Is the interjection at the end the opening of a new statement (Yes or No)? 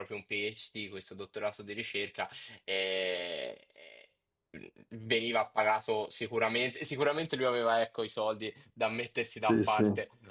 No